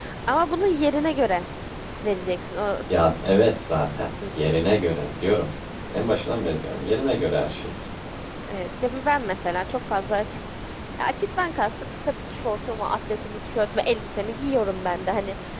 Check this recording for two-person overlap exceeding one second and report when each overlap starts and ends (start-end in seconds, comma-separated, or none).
none